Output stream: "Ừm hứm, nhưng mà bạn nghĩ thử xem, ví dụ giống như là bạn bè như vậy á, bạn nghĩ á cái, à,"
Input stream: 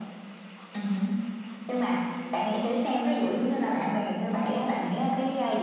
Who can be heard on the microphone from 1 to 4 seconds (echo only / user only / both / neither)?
echo only